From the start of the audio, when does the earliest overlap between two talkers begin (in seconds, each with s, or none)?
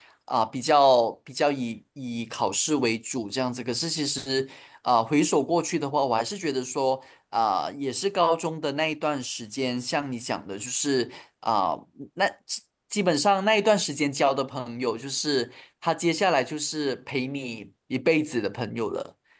none